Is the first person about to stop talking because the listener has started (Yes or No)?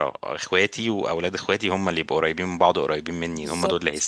Yes